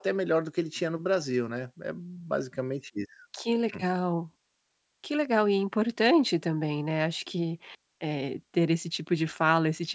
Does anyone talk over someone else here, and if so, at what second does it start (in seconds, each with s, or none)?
none